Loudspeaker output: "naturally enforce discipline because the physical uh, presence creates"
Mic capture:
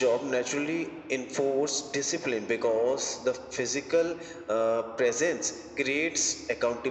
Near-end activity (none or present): none